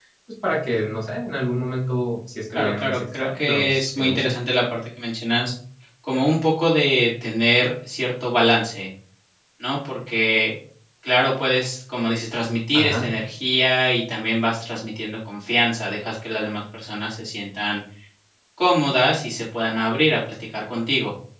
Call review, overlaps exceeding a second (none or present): present